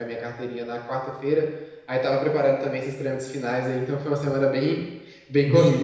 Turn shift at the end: Yes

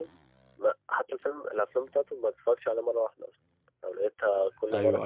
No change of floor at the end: No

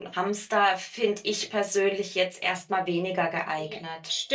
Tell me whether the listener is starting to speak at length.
Yes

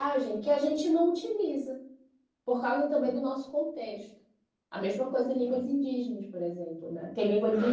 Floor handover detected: Yes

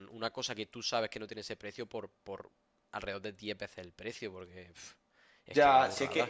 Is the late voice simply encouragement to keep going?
No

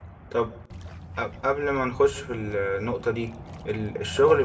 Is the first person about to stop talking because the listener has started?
No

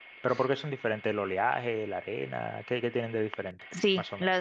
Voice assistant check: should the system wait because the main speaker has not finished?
No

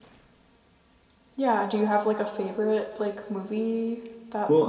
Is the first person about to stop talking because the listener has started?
Yes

